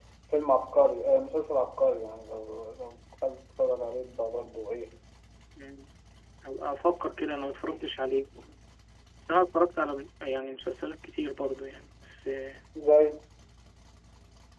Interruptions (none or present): none